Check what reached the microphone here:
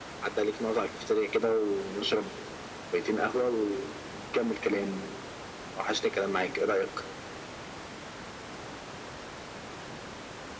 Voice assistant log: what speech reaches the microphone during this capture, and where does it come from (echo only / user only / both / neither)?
echo only